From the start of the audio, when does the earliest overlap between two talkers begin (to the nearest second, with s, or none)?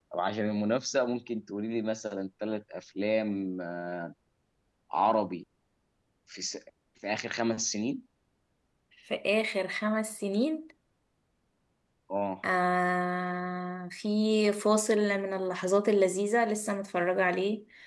none